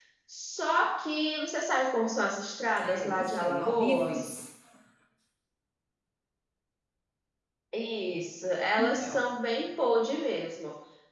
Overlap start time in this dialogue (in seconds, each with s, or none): 2.8 s